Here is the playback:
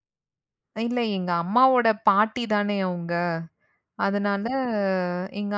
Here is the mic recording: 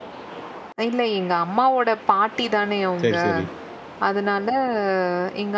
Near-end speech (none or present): present